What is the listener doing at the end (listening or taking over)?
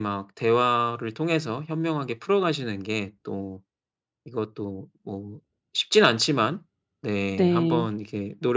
listening